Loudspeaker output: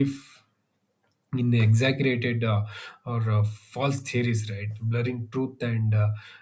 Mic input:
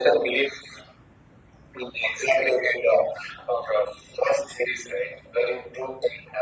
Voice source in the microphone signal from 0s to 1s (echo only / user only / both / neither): echo only